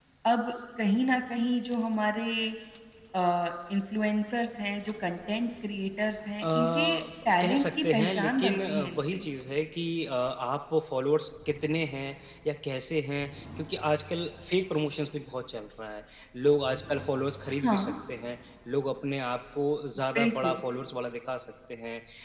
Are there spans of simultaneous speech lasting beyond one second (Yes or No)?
Yes